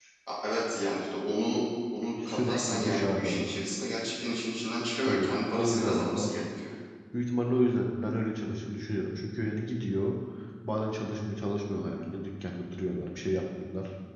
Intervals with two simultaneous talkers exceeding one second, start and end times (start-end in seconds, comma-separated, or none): 2.2-3.5, 5.1-6.4